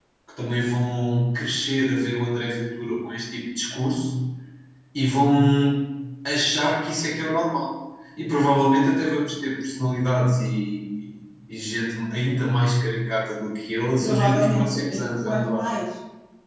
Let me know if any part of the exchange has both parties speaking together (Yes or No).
Yes